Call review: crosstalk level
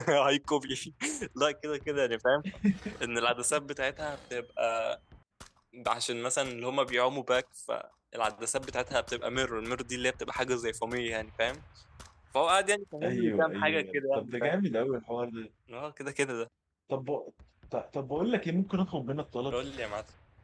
present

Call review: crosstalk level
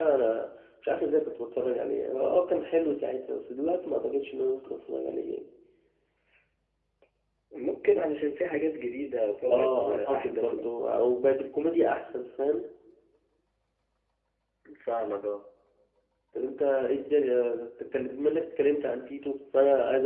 present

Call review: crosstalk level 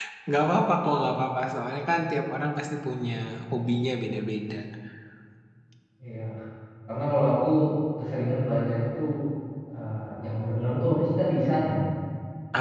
none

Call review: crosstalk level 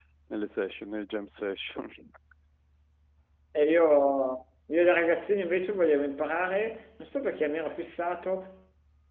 none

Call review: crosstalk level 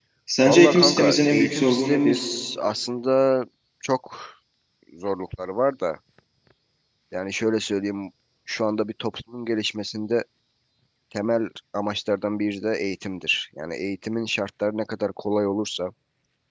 present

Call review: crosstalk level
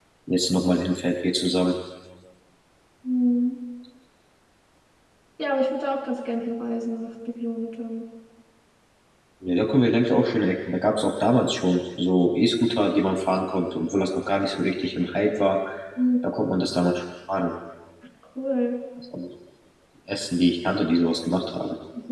none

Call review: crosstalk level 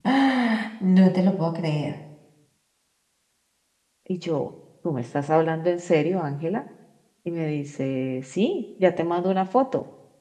none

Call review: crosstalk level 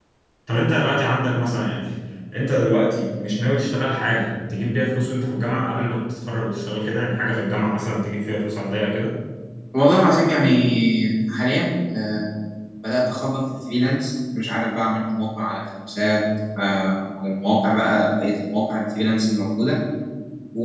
none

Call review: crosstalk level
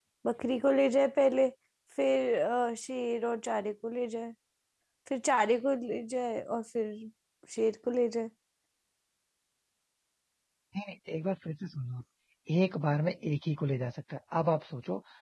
none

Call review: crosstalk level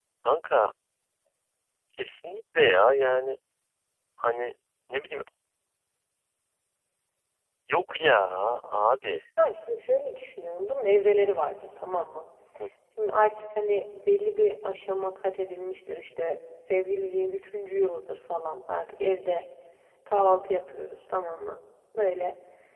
none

